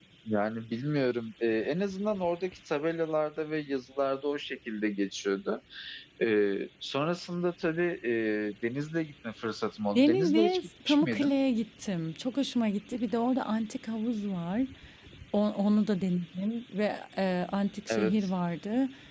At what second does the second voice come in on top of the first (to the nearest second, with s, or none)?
10 s